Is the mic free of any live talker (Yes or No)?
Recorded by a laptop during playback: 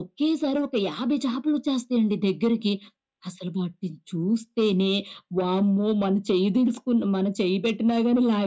Yes